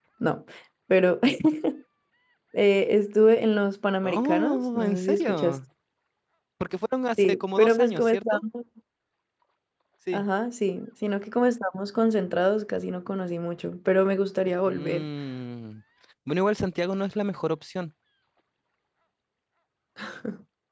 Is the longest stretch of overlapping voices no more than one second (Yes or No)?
No